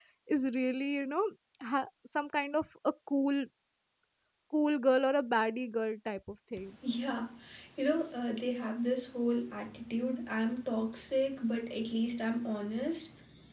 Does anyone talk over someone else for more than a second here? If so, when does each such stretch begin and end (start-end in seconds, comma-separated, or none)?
none